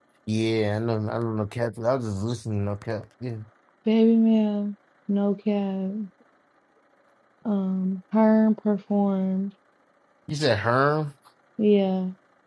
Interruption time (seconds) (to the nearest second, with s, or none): none